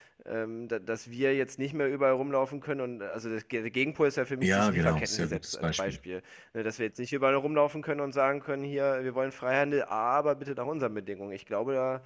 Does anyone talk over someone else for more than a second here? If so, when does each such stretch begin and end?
4.4-6.0

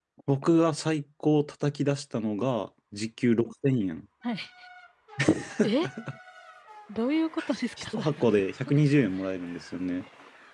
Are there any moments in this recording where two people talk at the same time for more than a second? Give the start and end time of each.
none

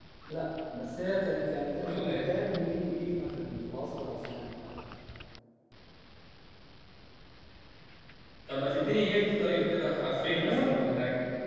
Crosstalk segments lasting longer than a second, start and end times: none

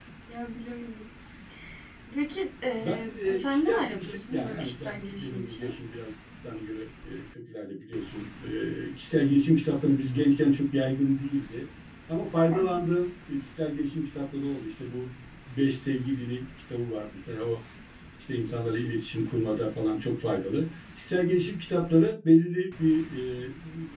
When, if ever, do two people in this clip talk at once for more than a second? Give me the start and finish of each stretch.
2.8-5.8

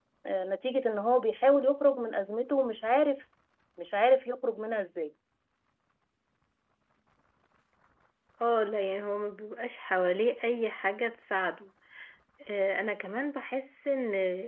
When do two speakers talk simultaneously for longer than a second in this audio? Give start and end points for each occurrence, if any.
none

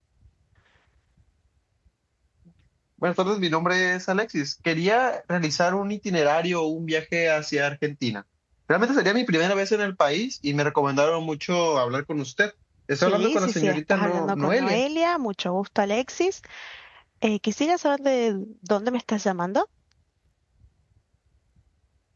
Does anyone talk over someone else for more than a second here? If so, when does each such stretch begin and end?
13.0-14.8

